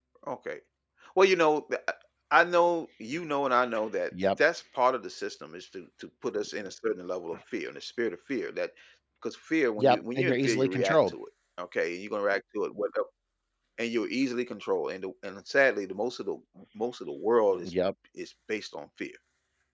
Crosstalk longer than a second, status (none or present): present